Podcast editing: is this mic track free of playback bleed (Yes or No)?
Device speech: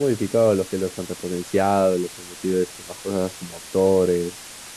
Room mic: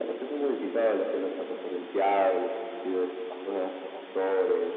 No